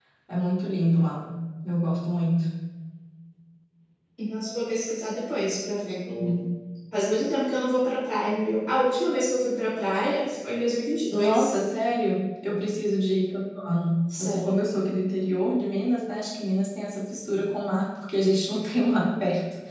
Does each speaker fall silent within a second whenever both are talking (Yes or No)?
Yes